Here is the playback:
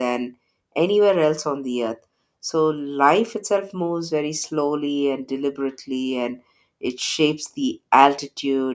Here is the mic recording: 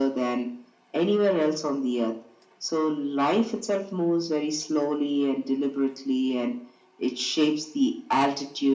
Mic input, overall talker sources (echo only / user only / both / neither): echo only